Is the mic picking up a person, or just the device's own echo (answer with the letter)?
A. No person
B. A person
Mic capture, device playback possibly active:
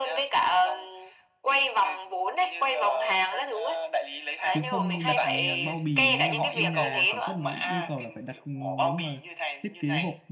B